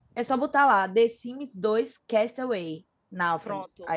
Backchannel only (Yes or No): No